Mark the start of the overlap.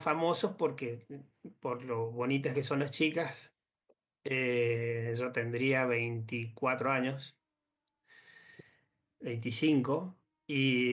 none

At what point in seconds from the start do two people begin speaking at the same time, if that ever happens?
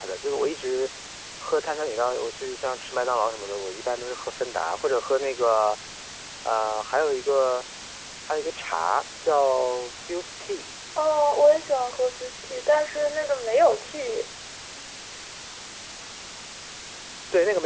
none

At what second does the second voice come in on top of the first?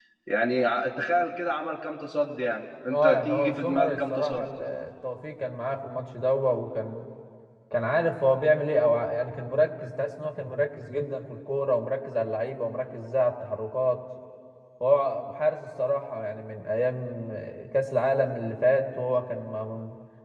3 s

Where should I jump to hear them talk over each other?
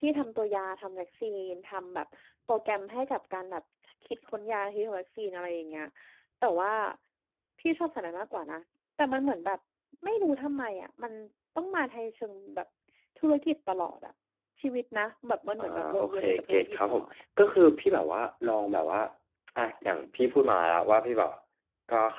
16 s

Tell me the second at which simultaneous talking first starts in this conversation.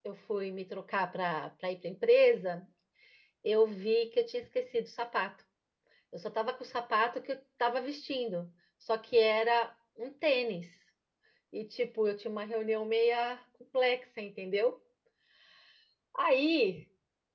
none

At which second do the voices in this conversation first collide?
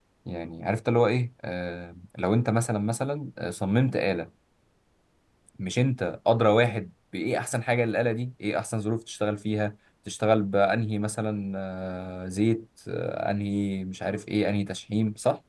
none

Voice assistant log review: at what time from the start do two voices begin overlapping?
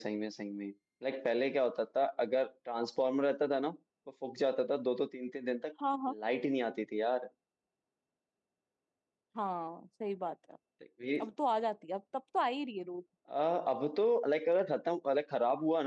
none

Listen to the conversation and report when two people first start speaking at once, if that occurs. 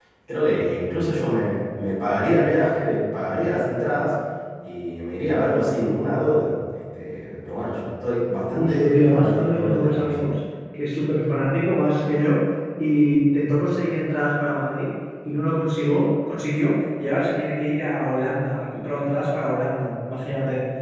9 s

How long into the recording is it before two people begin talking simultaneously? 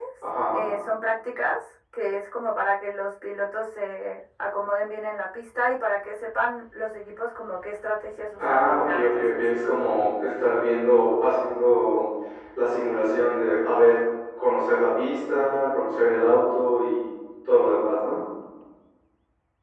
8 s

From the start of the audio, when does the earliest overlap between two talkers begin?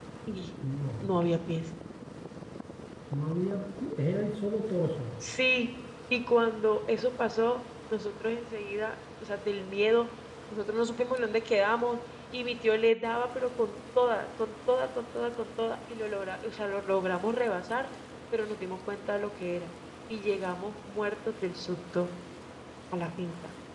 none

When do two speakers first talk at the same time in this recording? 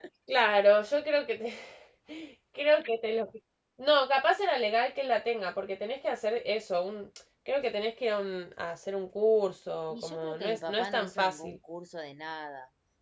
10 s

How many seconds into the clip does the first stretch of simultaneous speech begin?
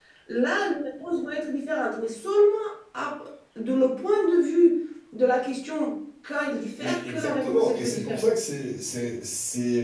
7 s

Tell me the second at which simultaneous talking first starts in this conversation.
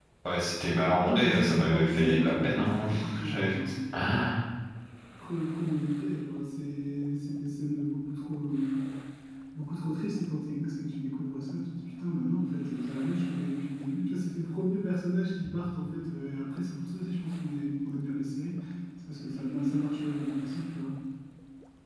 1 s

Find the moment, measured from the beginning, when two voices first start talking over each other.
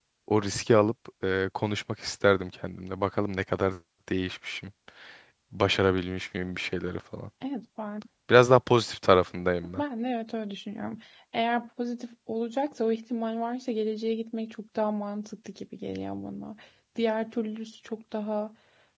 none

